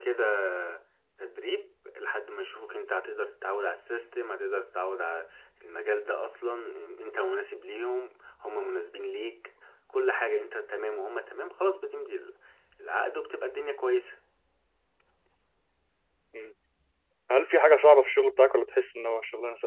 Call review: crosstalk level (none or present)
none